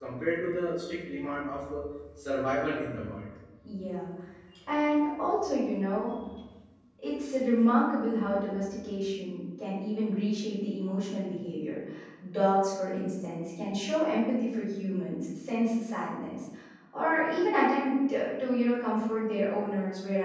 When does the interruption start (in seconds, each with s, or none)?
none